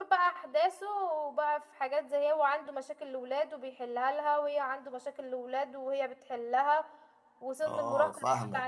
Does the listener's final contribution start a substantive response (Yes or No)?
No